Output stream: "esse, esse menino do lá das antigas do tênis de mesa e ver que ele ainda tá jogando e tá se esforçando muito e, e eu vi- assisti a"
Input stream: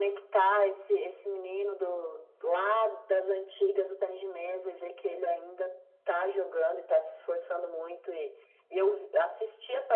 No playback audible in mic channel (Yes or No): No